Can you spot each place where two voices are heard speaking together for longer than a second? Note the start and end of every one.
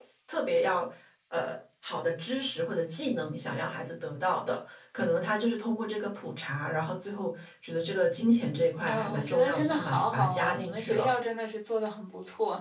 8.9-11.1

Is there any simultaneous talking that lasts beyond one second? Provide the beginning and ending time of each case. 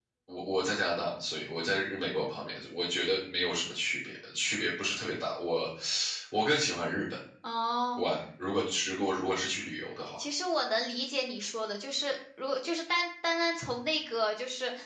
none

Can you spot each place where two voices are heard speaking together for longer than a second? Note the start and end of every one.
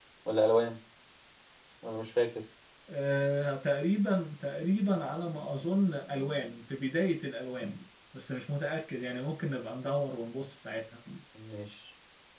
none

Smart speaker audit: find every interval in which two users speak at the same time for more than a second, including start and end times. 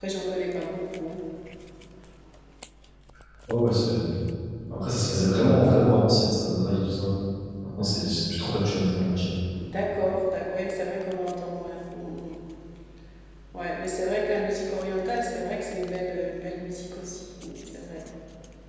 none

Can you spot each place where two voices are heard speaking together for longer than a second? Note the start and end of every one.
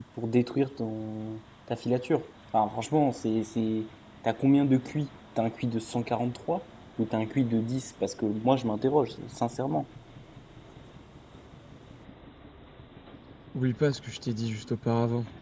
none

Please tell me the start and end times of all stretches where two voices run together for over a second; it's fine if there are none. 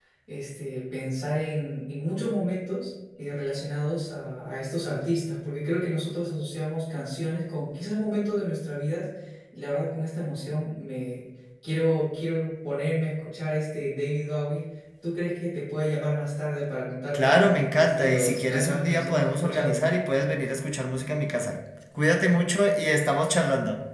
17.1-19.8

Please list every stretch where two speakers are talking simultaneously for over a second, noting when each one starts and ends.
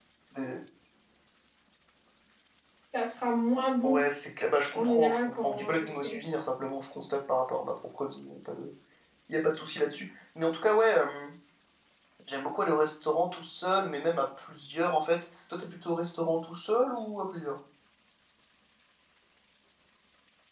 4.7-6.2

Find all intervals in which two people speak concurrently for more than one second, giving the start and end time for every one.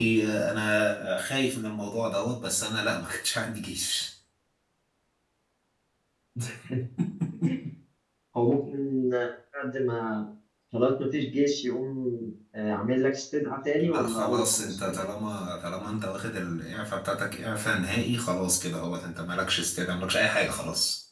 13.8-15.0

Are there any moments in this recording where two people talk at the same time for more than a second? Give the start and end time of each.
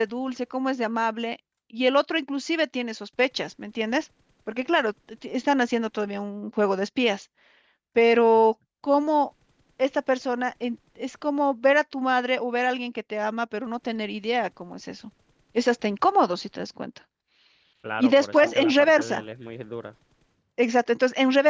18.0-19.2

